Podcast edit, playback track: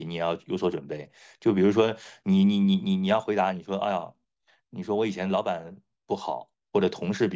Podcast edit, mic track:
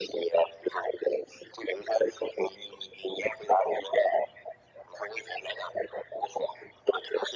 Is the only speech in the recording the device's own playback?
Yes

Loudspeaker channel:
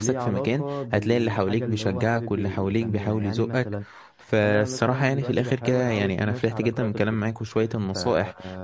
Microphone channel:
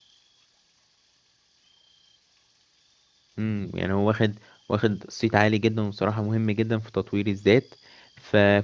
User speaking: Yes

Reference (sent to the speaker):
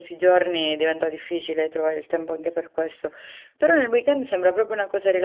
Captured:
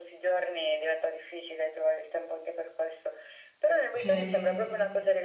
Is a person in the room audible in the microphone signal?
Yes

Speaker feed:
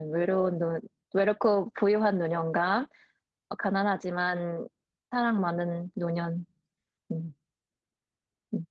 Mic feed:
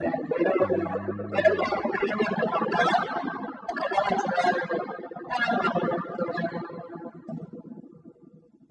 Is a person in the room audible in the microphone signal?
Yes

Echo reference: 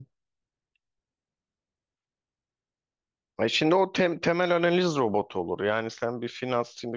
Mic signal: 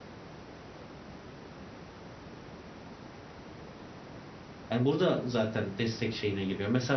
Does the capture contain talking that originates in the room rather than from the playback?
Yes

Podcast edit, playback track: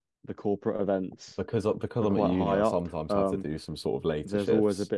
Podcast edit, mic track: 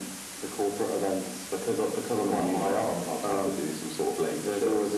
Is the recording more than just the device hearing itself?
No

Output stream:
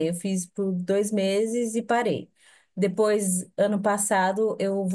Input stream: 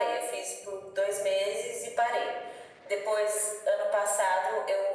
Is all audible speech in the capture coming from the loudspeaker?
Yes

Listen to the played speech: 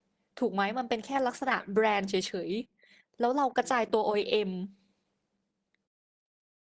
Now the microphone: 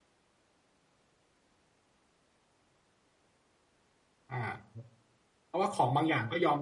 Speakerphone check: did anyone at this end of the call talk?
Yes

